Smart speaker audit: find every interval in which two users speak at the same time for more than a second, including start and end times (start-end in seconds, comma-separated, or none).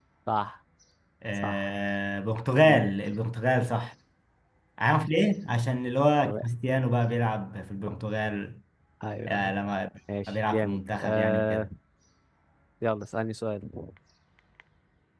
10.3-11.7